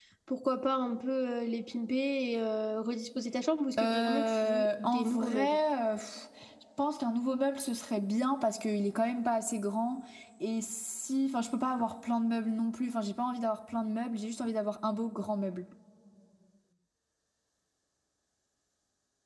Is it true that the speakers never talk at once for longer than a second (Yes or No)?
No